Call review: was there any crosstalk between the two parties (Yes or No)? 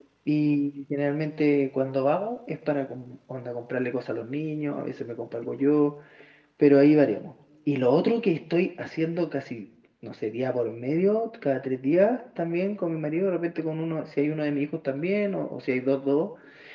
No